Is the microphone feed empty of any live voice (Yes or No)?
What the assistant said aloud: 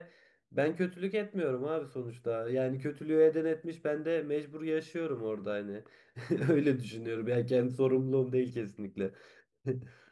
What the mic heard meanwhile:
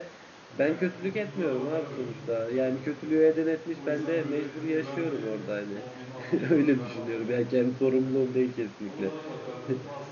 No